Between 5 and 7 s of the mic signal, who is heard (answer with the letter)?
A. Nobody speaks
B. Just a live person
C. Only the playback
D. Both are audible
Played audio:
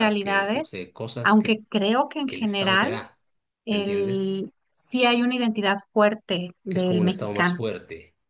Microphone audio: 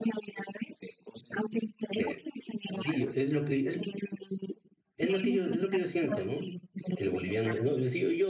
D